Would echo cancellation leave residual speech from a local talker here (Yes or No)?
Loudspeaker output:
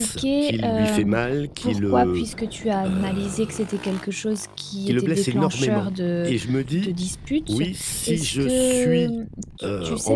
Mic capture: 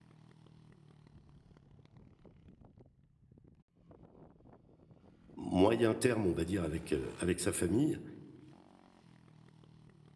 Yes